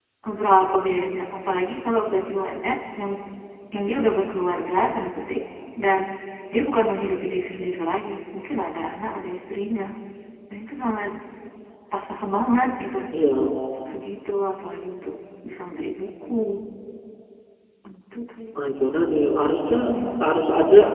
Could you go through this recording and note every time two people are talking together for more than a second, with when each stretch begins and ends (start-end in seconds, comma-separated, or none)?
none